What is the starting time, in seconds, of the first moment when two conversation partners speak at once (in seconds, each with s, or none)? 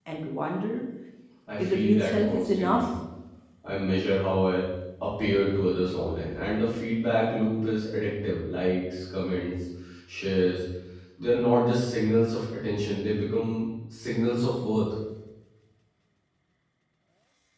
1.6 s